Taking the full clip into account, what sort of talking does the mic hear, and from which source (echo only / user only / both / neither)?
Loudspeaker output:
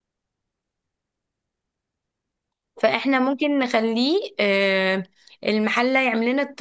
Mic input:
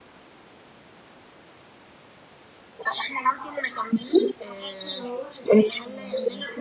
both